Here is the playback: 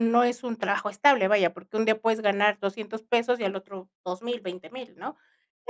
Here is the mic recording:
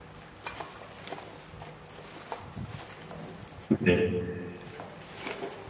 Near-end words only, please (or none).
Okey.